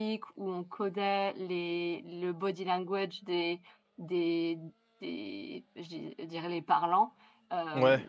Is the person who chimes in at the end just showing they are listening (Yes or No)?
Yes